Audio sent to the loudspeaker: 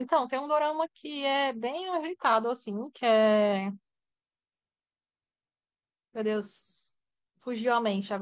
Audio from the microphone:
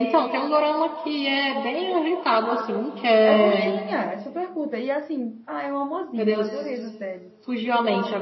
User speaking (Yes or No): Yes